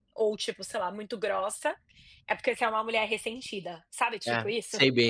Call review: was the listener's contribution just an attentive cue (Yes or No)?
No